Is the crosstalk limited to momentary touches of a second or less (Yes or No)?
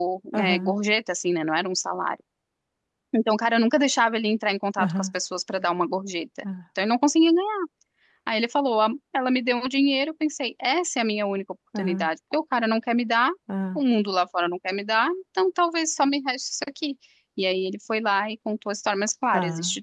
Yes